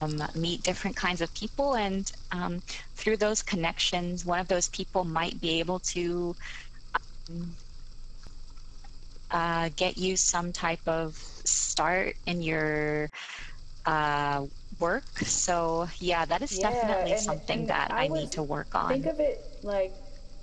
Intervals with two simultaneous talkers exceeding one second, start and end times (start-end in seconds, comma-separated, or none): 16.5-18.4